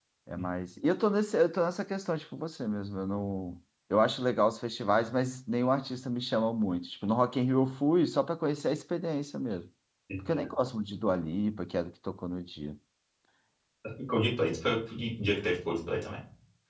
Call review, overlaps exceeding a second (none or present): none